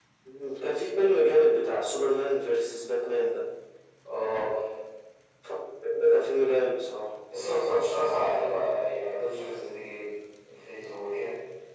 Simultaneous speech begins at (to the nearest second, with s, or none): none